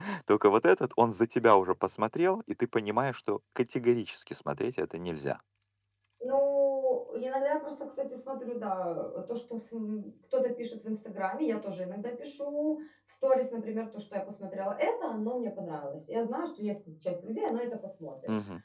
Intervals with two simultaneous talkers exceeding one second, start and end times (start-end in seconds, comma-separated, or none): none